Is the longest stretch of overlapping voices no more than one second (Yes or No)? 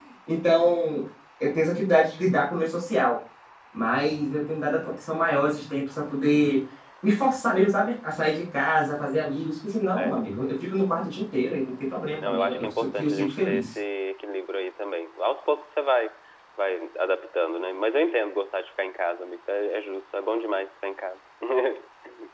No